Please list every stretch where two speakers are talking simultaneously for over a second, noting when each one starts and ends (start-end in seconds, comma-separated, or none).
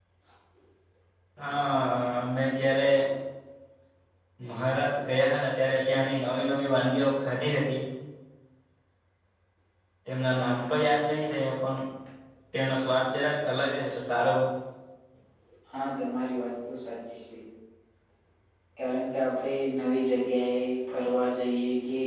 none